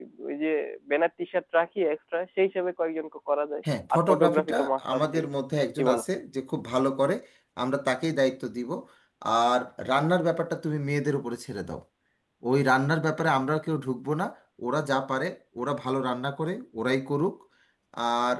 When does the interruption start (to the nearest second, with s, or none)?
4 s